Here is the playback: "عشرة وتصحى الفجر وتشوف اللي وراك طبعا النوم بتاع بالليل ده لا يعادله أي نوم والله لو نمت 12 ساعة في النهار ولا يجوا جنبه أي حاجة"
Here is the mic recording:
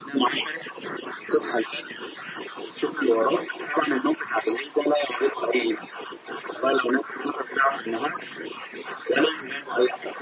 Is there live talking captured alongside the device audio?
No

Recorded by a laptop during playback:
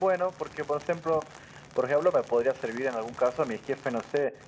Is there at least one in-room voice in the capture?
No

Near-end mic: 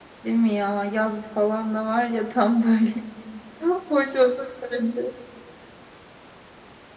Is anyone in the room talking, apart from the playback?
Yes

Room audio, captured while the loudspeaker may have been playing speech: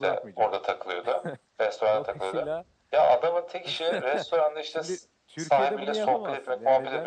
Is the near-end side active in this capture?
Yes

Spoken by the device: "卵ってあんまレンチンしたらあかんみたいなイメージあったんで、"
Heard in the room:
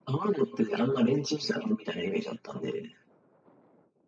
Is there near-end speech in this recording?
No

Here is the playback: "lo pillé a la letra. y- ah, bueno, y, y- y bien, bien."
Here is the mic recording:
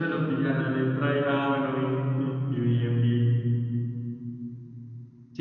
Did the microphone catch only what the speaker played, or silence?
Yes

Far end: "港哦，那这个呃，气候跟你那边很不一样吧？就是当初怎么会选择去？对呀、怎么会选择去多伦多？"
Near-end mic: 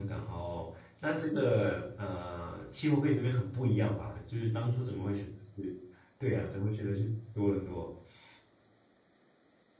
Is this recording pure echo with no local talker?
Yes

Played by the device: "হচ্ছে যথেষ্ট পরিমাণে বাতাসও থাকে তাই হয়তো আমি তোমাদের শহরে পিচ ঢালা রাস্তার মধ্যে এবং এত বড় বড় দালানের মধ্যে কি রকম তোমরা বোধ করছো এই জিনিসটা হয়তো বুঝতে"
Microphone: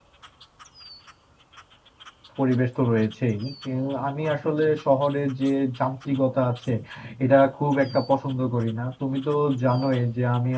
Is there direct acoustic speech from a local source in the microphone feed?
Yes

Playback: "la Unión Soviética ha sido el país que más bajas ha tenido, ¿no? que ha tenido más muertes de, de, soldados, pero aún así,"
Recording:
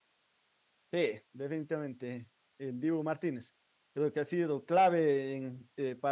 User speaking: Yes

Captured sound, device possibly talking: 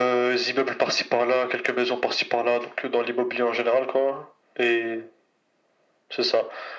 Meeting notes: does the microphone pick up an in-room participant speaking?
No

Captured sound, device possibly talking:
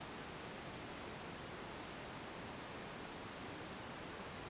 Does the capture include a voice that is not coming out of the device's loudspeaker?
No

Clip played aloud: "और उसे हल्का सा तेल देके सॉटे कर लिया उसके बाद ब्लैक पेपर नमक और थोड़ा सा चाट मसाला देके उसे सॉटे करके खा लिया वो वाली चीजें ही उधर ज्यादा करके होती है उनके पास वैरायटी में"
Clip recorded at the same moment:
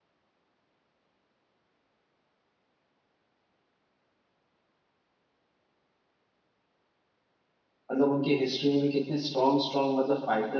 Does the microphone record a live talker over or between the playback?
Yes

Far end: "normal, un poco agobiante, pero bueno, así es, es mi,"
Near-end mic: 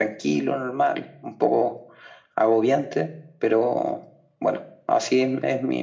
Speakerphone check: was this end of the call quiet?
Yes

